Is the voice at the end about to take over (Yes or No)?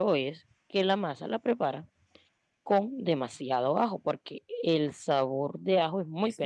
Yes